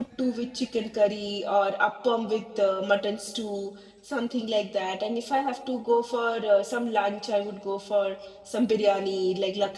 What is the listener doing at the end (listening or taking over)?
listening